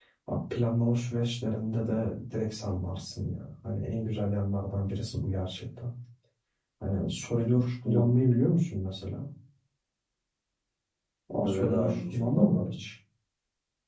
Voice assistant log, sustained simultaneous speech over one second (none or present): present